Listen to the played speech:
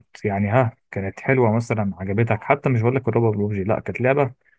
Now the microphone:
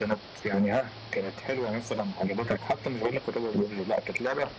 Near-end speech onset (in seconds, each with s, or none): none